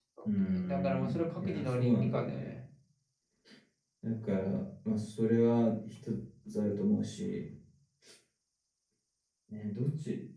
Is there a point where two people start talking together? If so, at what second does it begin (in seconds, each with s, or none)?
0.6 s